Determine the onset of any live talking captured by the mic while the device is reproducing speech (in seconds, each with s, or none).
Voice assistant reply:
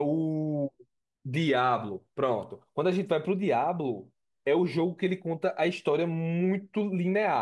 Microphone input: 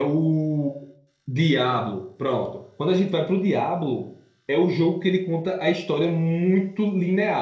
none